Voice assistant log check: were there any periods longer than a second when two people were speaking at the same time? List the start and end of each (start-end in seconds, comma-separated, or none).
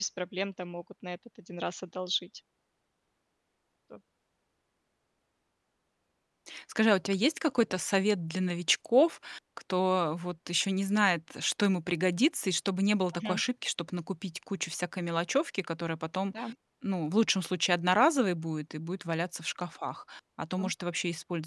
none